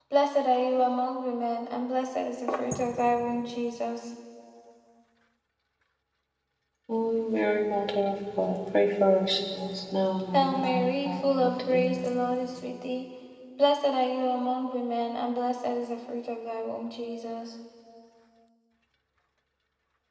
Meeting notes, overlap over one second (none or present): present